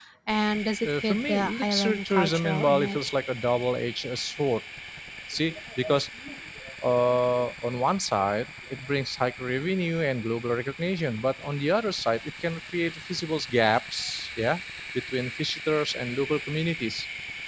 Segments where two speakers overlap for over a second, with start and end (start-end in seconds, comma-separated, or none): 0.8-3.0